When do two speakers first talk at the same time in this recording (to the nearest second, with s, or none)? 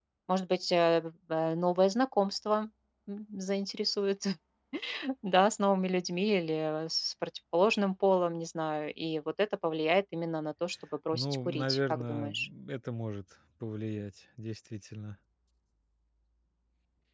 11 s